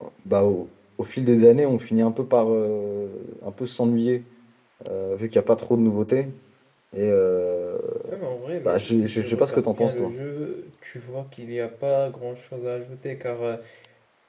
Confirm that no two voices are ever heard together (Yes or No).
No